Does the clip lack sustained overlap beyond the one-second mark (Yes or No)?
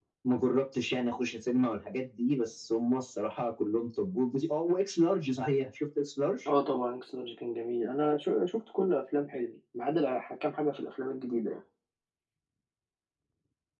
Yes